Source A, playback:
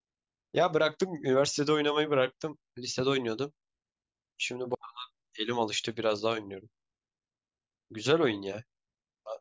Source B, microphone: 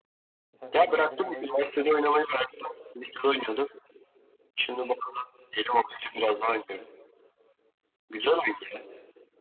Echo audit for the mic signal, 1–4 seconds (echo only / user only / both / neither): both